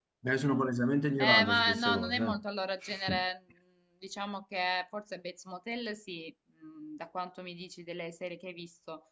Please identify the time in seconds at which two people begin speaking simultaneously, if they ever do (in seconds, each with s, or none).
1.2 s